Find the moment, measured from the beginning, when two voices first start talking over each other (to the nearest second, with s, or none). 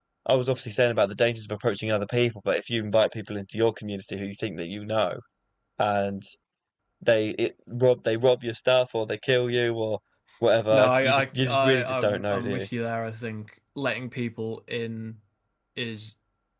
11 s